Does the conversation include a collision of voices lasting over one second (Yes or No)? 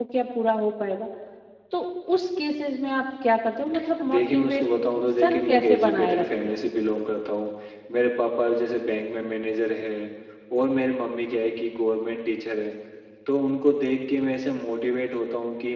Yes